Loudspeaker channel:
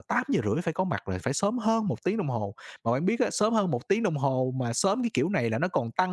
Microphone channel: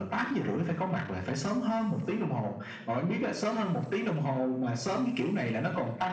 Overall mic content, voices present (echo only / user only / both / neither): echo only